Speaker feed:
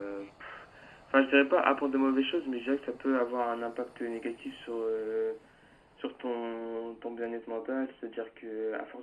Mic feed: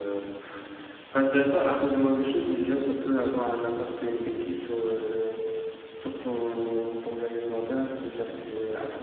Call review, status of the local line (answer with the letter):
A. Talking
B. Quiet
B